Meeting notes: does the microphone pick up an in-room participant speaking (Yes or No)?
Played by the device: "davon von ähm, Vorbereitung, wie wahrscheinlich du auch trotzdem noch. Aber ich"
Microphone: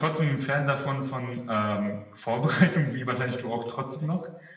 No